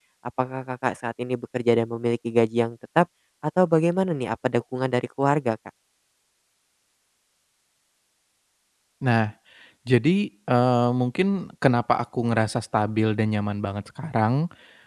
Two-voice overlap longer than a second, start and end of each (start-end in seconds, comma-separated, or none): none